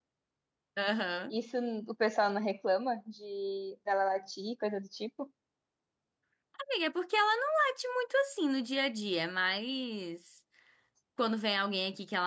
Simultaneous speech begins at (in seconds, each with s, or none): none